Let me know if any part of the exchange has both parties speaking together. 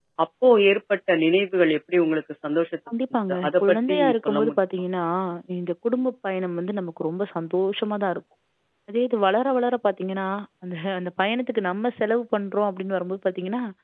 Yes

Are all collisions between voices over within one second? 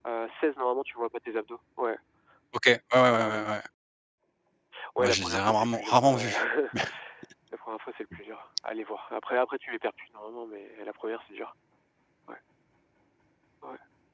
No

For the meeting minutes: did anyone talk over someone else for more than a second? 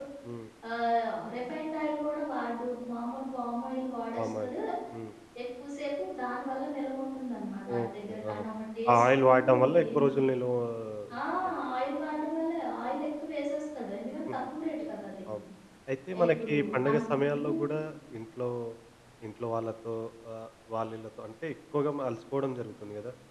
Yes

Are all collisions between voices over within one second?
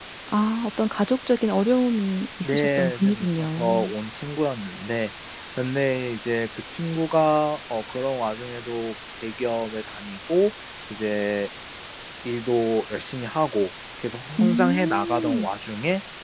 No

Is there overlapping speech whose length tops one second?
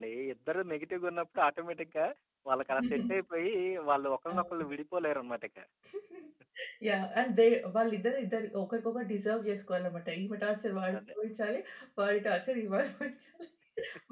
No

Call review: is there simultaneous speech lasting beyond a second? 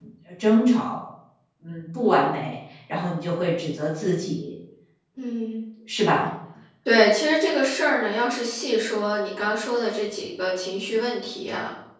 No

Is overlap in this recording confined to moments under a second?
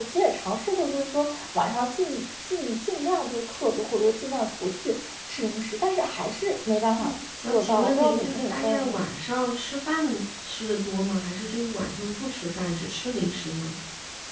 No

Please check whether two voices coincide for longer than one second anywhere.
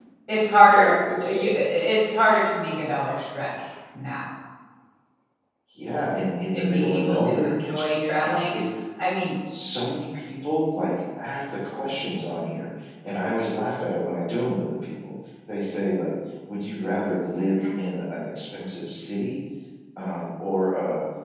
Yes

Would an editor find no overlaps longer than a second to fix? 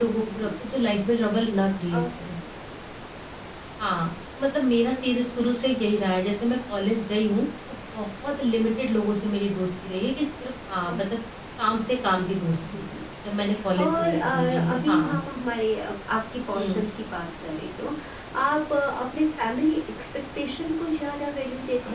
No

